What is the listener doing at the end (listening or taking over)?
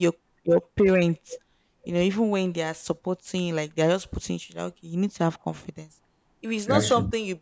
listening